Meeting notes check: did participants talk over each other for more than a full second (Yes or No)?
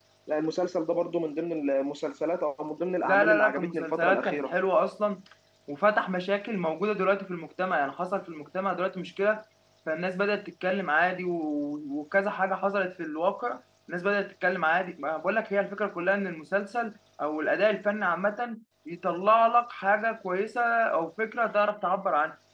Yes